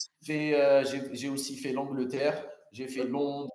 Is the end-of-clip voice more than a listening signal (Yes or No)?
No